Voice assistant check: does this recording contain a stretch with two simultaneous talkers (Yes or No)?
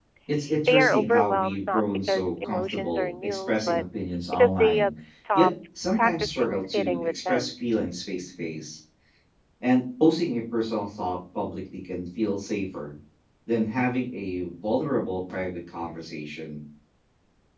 Yes